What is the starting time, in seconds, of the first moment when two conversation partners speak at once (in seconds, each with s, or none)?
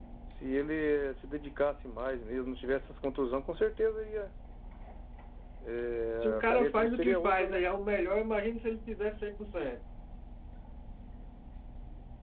6.2 s